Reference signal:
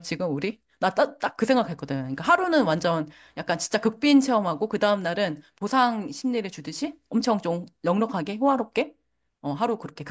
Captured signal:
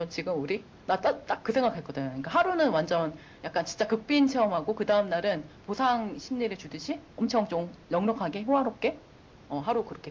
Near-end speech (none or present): none